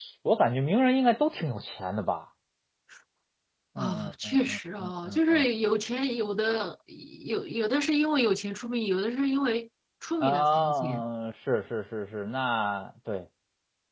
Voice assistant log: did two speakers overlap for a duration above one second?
Yes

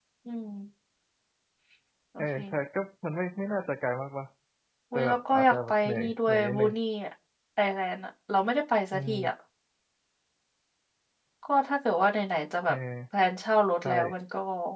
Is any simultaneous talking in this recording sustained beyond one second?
Yes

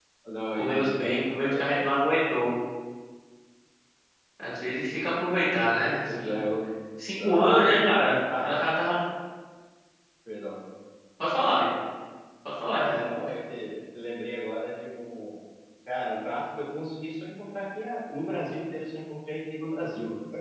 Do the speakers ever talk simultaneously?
Yes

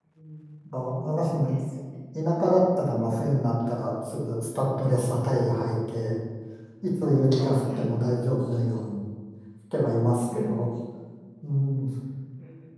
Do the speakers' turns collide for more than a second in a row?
No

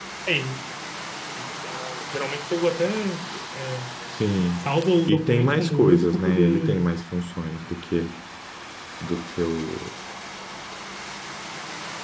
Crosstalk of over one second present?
Yes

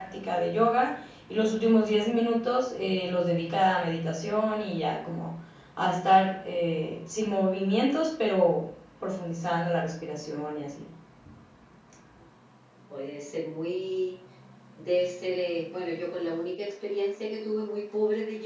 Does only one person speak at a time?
Yes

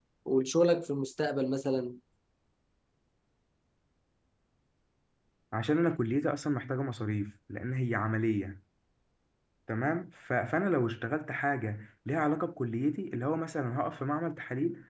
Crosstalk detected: No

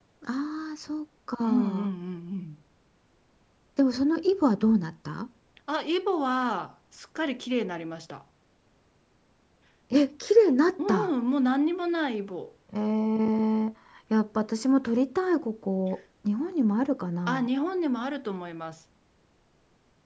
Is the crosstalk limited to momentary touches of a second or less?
Yes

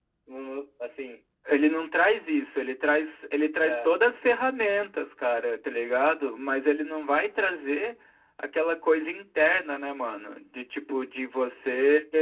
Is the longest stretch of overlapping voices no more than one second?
Yes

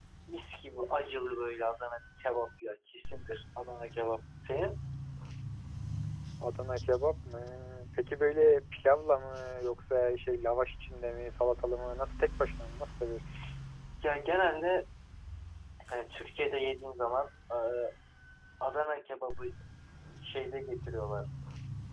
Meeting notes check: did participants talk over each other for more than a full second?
No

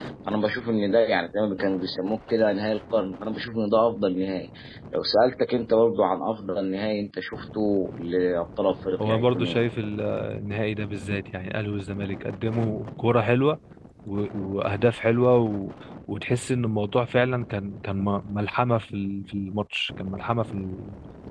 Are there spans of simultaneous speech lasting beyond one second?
No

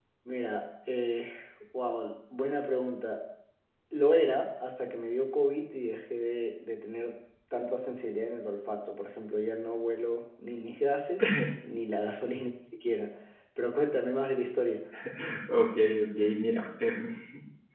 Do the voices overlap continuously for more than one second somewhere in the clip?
No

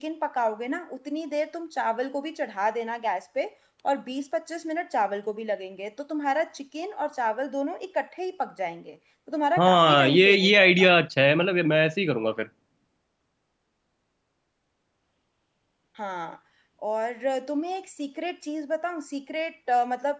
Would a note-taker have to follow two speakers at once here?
Yes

